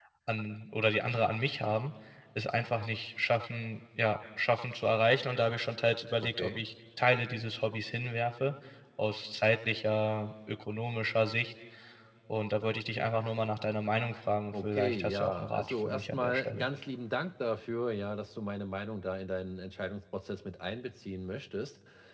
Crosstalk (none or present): present